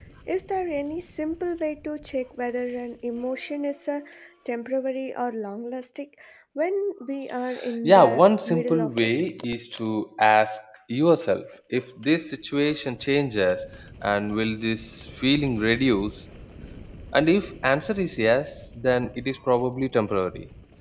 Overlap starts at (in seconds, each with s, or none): 7.8 s